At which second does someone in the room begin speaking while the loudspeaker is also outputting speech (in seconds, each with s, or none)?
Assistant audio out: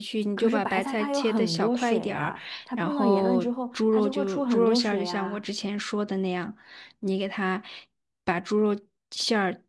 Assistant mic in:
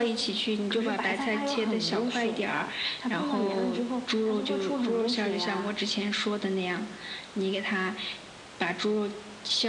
none